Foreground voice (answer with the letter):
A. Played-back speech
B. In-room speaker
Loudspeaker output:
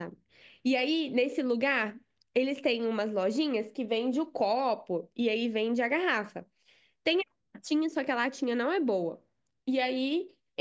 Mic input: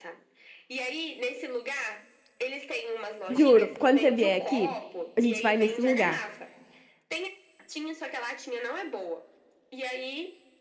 B